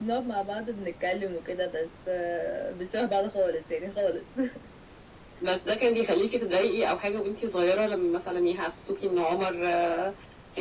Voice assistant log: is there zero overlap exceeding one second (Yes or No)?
Yes